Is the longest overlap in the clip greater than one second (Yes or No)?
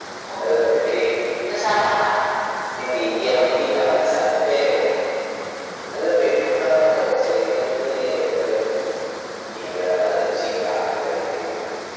No